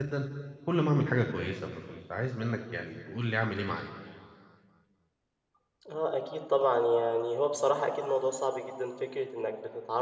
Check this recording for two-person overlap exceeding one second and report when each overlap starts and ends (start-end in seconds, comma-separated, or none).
none